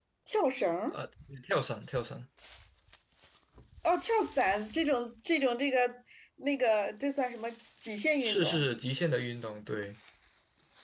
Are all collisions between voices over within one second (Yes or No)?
Yes